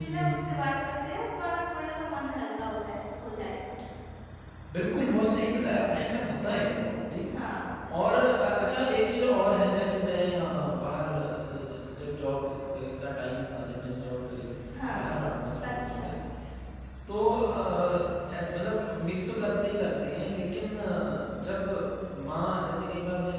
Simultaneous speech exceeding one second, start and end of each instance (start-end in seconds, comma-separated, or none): none